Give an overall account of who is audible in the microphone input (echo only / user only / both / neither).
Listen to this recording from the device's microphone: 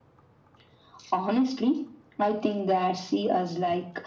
echo only